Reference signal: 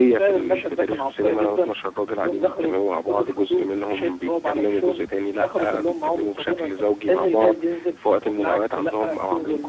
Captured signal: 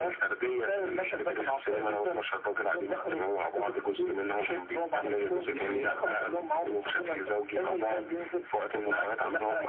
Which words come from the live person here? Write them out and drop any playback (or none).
دي حقيقة